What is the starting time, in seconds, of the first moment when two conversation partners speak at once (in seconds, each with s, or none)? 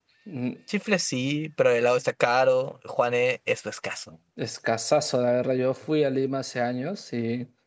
none